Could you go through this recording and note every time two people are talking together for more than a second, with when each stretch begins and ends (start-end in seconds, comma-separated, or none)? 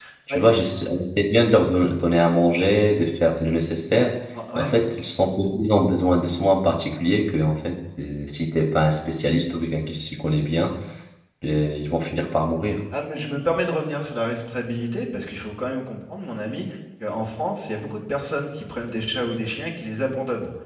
none